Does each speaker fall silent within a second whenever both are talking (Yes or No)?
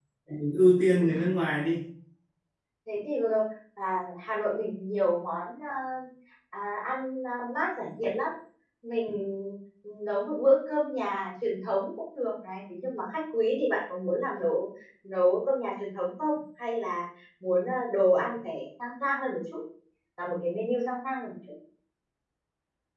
Yes